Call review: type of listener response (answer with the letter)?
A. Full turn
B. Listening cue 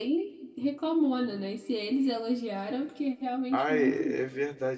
A